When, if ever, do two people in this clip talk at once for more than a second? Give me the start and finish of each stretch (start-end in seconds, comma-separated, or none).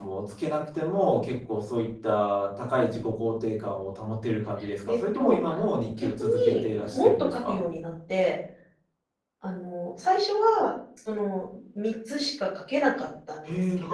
6.0-7.6